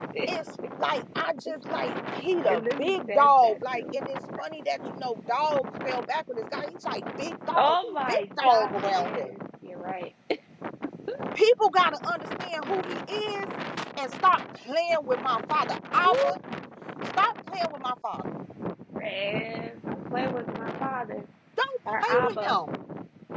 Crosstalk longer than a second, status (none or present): present